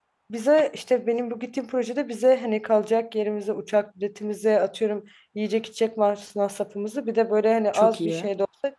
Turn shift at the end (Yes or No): No